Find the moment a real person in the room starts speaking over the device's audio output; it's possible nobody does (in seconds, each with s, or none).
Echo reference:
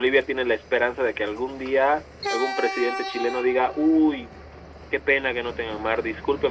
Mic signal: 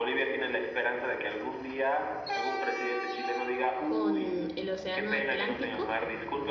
3.8 s